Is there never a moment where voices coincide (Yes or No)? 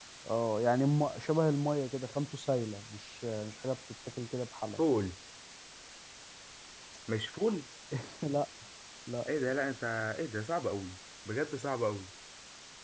Yes